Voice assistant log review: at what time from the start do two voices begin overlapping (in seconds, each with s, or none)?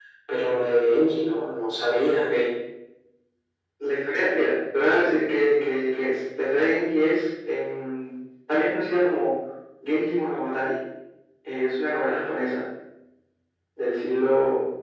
none